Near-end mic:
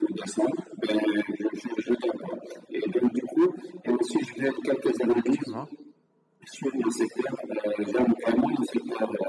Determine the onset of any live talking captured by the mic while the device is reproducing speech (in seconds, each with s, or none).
5.1 s